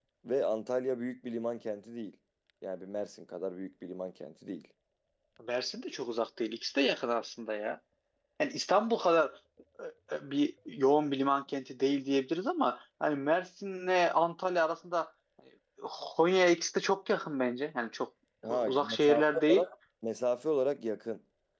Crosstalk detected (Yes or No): Yes